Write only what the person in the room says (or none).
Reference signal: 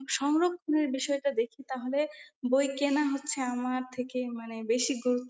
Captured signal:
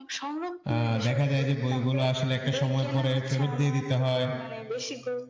আ দেখা যায় যে বইগুলো আসলে একটা সময় পরে ফেরত দিয়ে দিতে হয়।